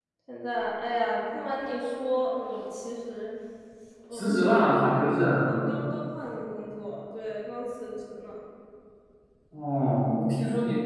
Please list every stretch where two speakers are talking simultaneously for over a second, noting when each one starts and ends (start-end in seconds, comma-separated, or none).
4.1-5.5